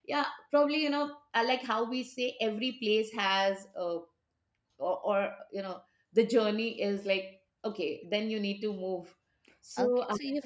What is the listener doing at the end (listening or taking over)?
taking over